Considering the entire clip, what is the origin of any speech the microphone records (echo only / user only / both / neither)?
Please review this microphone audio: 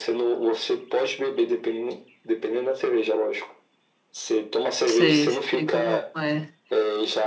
both